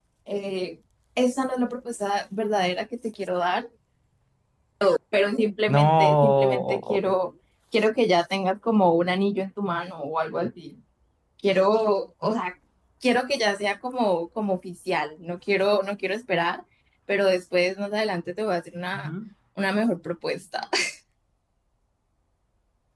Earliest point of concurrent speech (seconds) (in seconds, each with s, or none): 5.7 s